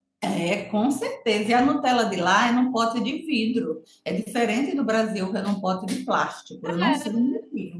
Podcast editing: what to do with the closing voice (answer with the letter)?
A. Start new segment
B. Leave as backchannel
A